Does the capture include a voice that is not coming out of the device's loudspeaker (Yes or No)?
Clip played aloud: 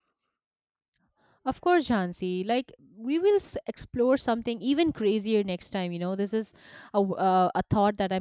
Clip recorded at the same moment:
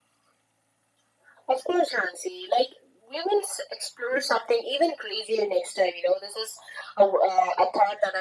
No